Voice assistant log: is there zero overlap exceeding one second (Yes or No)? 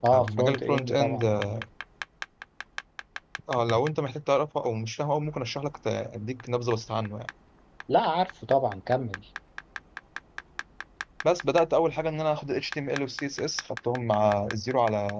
No